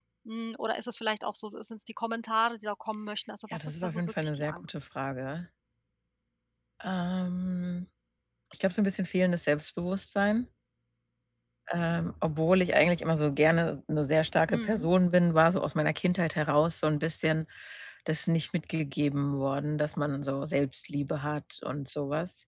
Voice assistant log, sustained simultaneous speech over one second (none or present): present